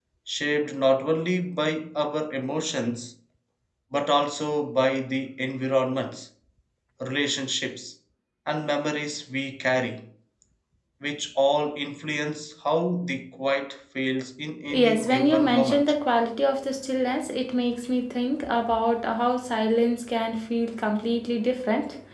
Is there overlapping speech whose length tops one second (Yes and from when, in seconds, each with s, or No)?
Yes, from 14.7 s